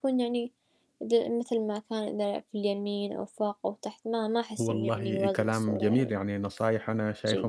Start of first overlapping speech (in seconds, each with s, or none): 4.6 s